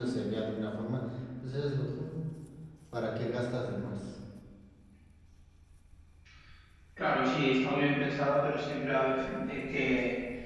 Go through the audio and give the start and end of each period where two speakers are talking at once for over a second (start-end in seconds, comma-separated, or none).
none